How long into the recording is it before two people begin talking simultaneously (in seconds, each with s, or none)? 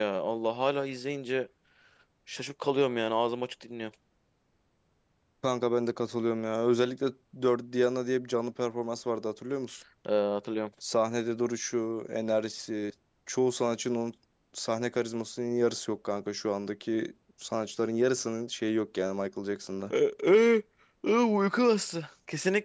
none